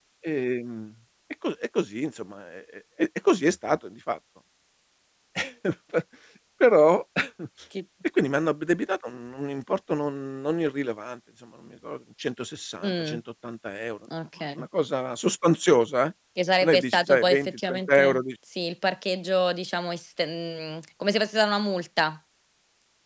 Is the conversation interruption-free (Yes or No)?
No